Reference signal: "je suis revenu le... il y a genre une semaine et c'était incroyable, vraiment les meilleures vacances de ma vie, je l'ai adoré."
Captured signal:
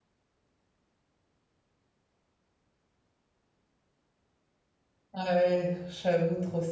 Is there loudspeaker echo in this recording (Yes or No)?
No